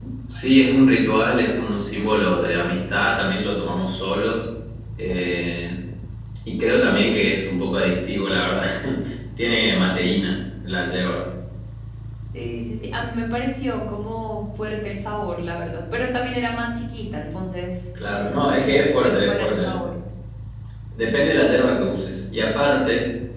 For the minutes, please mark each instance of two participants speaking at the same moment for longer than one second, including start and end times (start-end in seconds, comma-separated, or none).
18.1-19.8